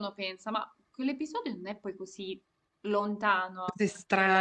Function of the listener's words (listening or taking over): taking over